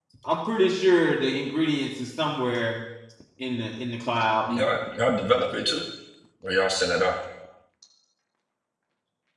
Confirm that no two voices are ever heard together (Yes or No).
Yes